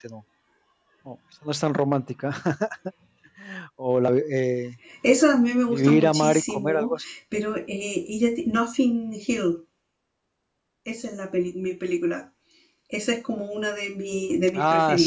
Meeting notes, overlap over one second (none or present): present